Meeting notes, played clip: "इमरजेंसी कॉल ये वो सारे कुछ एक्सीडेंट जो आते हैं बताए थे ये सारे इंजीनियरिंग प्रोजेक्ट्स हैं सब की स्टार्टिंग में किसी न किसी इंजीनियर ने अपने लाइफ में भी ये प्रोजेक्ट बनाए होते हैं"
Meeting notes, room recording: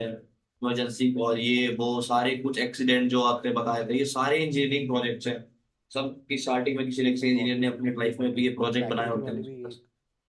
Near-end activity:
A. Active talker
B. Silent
A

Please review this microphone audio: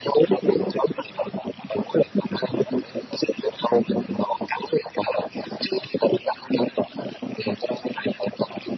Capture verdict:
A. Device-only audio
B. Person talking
A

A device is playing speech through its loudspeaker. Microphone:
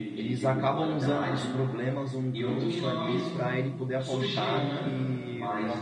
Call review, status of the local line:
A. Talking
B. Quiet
A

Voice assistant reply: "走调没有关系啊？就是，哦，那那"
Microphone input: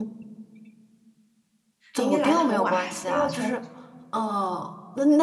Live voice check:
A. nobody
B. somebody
B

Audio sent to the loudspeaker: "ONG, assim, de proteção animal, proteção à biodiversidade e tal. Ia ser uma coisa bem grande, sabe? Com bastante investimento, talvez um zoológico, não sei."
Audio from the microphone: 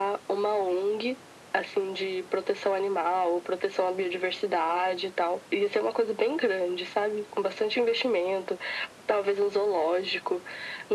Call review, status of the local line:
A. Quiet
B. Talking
A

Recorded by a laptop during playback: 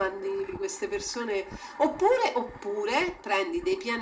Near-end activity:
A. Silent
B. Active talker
A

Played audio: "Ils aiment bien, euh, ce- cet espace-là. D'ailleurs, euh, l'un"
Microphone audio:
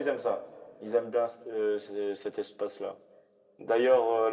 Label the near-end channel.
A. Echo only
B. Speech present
A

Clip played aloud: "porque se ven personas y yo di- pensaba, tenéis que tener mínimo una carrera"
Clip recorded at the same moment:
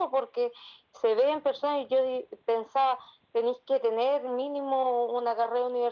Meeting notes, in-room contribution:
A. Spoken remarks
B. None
B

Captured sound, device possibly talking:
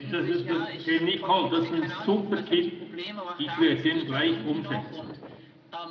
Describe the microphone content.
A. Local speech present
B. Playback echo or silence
A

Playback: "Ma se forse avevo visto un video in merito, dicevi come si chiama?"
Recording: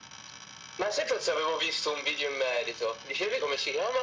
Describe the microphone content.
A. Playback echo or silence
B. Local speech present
A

